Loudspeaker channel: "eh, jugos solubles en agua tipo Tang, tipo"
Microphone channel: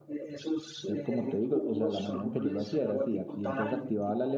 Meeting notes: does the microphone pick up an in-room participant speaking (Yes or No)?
Yes